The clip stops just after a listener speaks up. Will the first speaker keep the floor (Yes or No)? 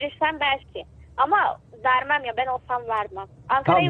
Yes